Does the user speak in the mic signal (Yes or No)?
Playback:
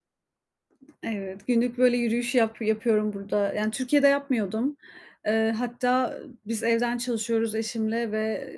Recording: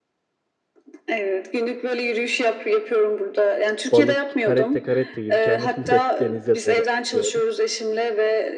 Yes